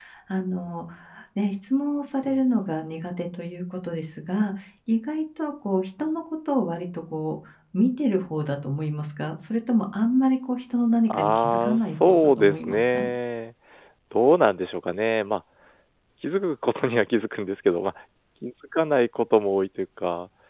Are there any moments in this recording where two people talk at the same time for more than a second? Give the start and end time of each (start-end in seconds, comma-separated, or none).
11.1-13.0